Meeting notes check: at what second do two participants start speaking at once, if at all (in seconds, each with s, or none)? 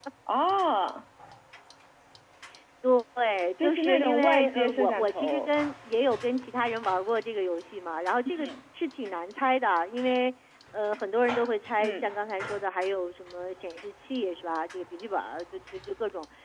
3.6 s